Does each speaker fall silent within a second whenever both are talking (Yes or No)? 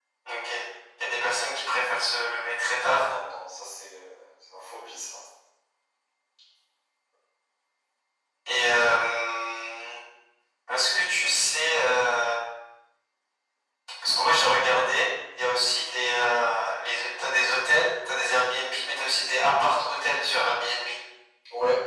Yes